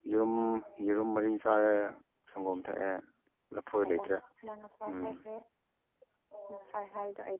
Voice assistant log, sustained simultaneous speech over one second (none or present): none